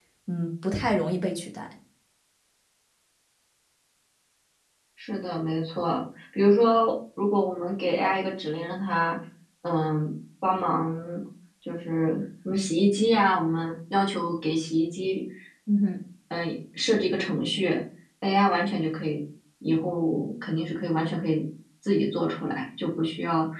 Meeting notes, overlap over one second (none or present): none